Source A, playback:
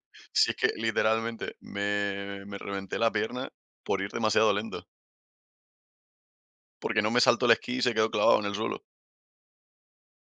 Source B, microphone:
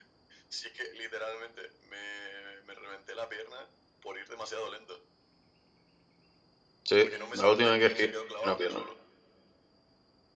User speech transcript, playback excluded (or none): Sí, la última vez que esquié rompí una pierna.